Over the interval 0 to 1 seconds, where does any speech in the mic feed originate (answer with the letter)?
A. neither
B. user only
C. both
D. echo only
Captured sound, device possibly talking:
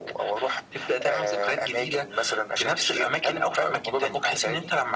D